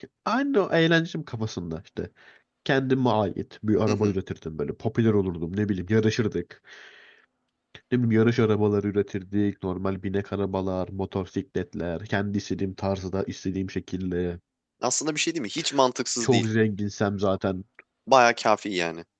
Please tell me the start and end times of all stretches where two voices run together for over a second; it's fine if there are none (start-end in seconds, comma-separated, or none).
none